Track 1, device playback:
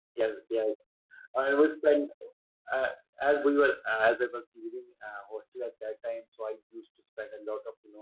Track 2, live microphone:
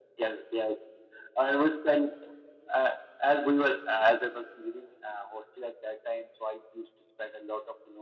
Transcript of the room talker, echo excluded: none

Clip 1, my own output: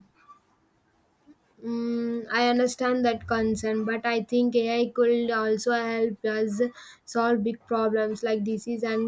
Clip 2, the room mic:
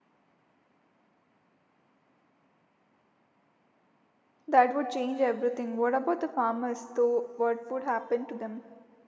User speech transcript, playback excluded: That would change everything. What about the farmers, though? What would happen to them?

